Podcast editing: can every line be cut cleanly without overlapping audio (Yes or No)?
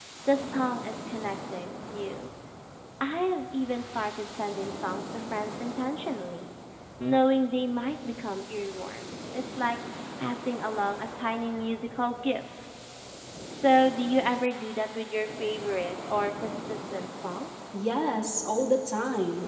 Yes